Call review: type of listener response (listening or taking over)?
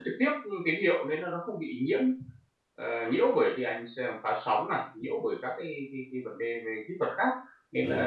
listening